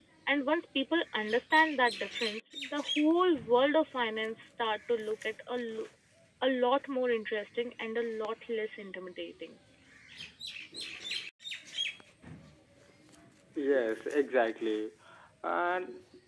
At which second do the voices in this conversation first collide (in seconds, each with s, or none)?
none